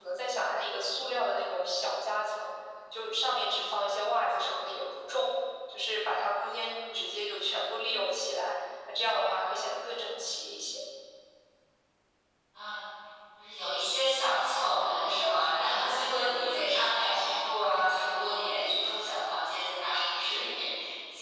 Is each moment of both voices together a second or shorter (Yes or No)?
Yes